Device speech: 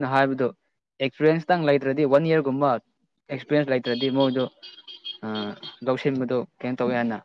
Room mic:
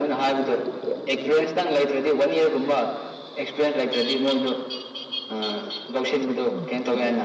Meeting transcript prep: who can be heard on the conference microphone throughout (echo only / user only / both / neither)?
echo only